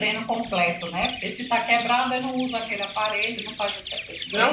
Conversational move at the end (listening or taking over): taking over